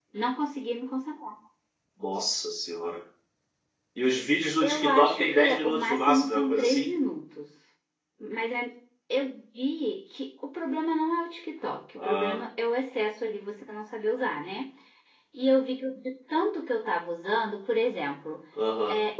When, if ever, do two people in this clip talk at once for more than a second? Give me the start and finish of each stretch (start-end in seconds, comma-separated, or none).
4.6-6.9